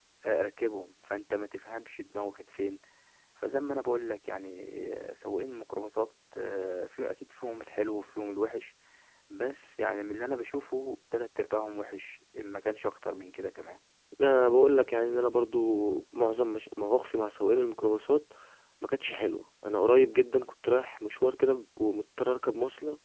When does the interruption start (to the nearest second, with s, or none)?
none